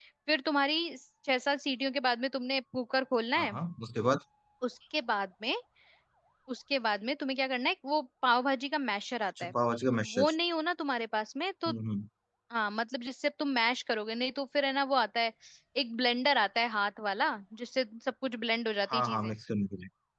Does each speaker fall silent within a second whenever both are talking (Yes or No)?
Yes